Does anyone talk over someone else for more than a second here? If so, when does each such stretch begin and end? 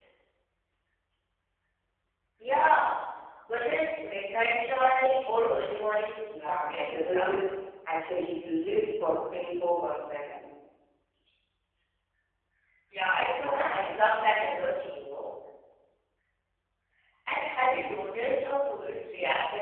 6.3-7.6, 13.3-14.5

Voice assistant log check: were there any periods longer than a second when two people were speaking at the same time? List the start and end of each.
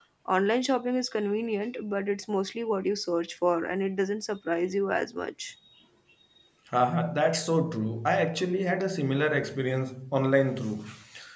none

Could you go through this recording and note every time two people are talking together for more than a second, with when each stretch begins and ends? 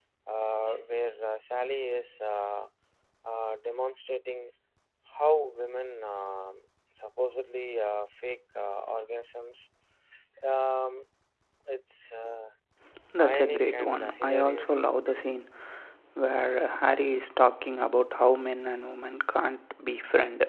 13.2-14.8

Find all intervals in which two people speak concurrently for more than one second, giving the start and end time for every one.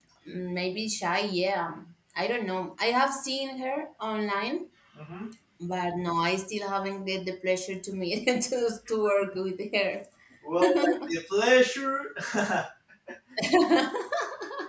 none

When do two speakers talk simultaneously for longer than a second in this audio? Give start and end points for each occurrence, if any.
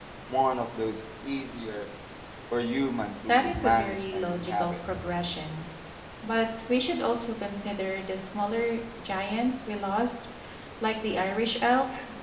3.3-4.7

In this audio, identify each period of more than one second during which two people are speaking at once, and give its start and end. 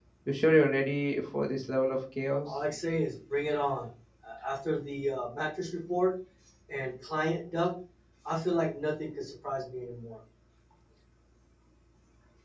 none

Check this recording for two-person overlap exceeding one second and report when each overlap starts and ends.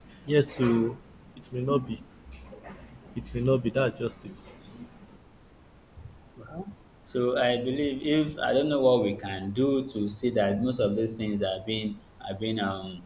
none

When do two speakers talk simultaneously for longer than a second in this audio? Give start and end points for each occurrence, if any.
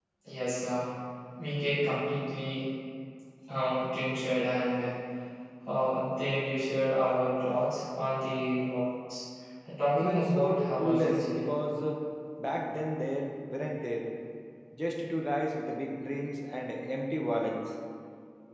9.9-11.4

